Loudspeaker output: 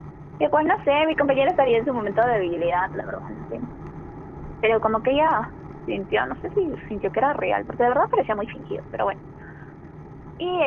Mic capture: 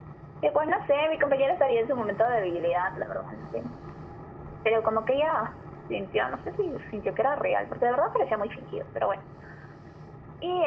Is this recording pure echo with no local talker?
Yes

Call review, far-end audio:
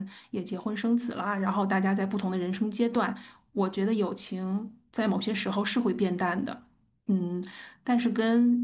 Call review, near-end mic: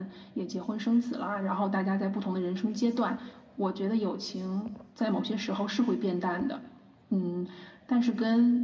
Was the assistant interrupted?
No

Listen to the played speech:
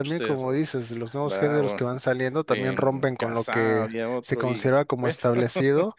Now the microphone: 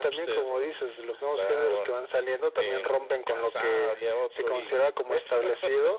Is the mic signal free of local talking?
Yes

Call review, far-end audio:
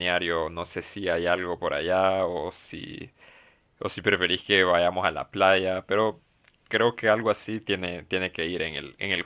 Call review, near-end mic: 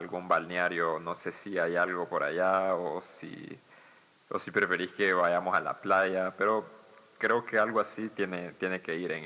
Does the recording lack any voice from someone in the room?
Yes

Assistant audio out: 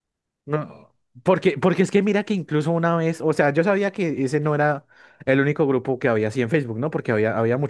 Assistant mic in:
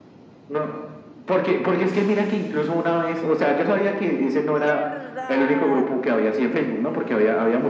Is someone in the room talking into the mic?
Yes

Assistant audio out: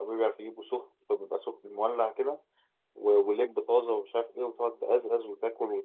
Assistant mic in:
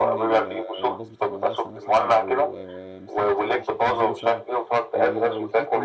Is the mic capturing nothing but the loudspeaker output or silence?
No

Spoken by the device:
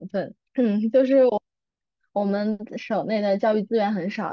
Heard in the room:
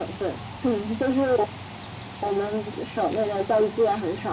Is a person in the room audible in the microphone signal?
No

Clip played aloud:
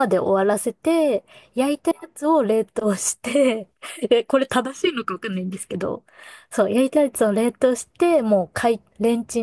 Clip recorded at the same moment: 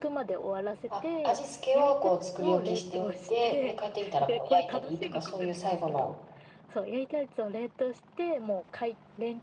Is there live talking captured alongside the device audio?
Yes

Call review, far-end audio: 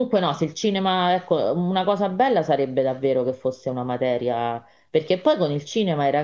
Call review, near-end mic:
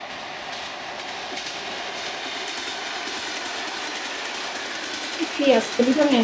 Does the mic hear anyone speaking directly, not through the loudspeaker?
Yes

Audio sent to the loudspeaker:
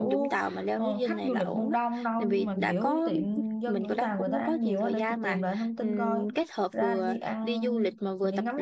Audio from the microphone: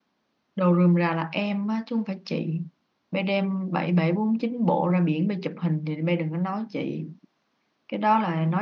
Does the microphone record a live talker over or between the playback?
Yes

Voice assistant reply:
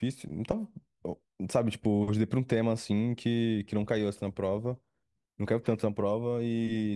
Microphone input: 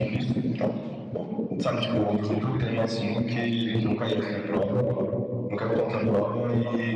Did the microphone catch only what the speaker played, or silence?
Yes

